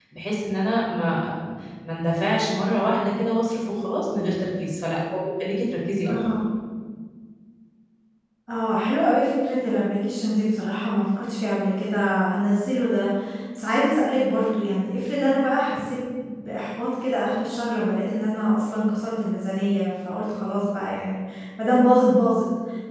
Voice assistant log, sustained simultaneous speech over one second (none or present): none